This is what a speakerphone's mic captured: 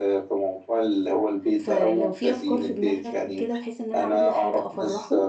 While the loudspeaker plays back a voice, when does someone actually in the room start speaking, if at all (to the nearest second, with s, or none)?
2 s